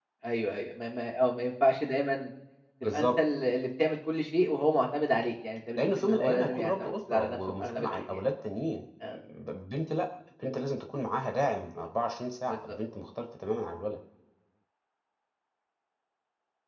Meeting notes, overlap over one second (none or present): present